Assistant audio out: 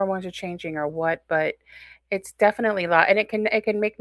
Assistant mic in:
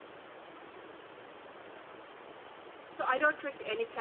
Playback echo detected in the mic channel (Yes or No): No